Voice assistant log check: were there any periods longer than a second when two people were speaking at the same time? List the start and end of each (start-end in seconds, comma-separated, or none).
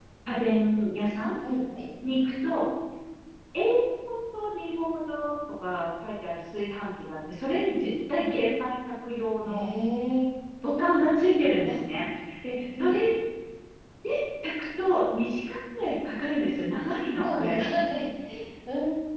none